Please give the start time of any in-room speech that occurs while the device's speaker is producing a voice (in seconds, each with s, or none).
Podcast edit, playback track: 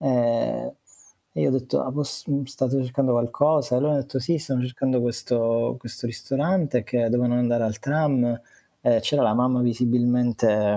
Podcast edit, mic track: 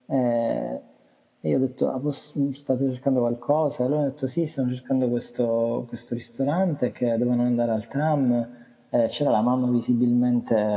none